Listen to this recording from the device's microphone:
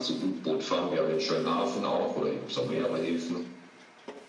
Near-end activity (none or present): none